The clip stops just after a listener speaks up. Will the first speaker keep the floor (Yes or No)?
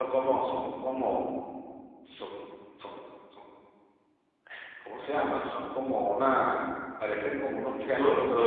No